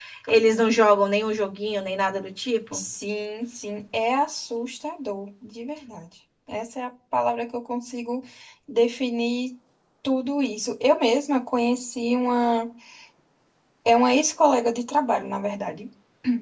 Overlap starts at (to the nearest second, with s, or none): none